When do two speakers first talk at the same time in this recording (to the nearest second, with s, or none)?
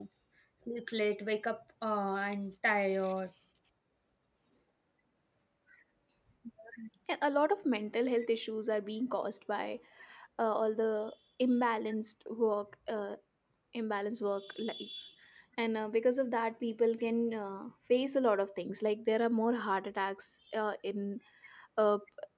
none